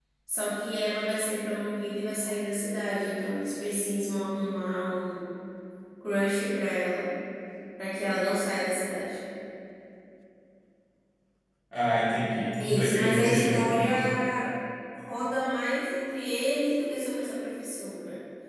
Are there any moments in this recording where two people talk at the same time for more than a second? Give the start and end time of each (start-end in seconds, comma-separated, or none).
12.6-14.1